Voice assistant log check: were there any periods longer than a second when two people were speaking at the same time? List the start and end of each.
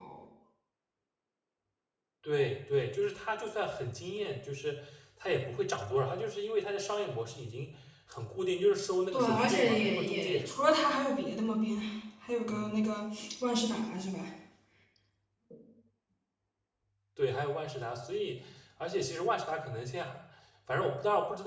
9.1-10.5

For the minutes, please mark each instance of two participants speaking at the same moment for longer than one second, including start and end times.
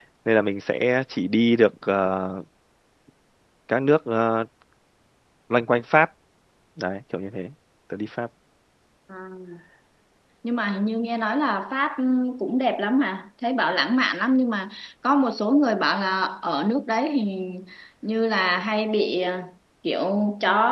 none

